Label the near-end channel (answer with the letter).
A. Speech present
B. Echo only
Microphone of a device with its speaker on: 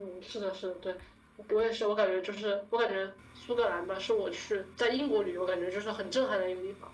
B